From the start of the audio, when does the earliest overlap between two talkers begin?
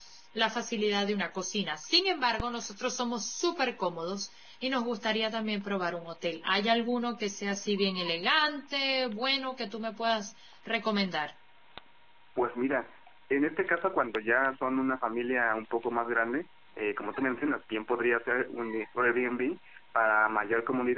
none

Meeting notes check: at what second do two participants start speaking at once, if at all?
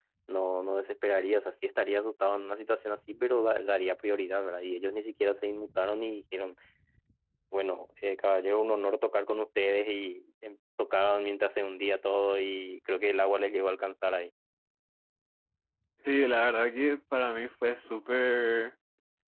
none

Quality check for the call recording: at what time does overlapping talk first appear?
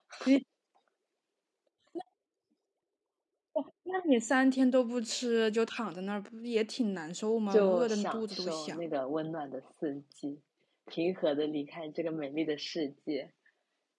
7.5 s

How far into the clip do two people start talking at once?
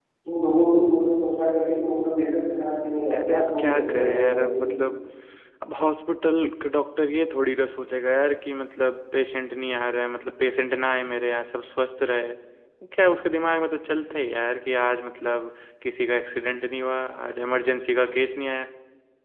3.1 s

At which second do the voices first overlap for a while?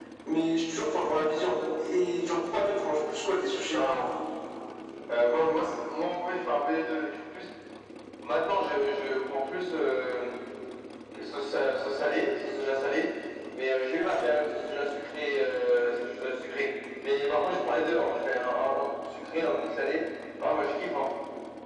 none

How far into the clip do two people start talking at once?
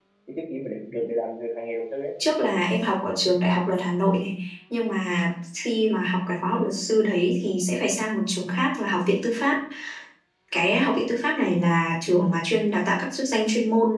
none

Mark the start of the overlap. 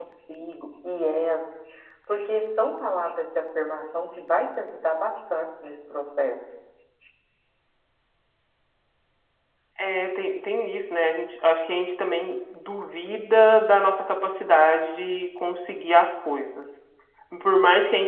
none

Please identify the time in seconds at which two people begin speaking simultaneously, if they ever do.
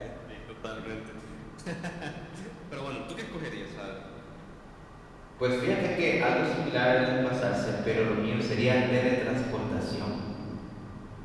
none

